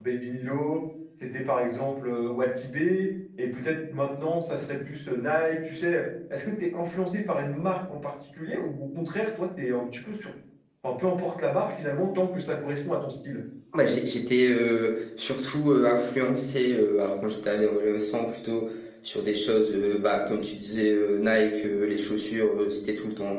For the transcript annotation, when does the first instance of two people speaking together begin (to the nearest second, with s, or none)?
none